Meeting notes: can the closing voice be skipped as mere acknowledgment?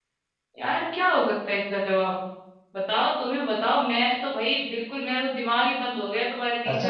No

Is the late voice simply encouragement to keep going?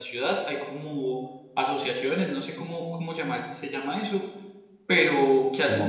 Yes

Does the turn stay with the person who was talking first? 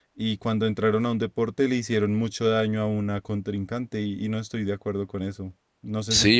No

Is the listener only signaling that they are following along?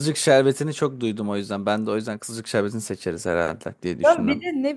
No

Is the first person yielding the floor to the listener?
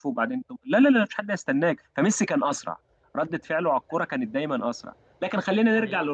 No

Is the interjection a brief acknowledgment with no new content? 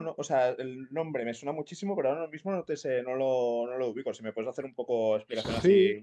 No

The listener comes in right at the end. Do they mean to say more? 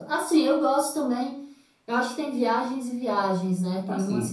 No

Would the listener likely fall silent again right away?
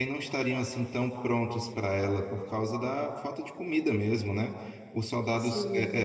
Yes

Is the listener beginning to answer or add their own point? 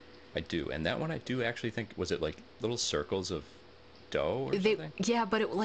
Yes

